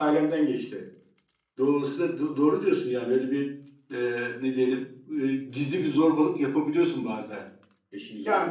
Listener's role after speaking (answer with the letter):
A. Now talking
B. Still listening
A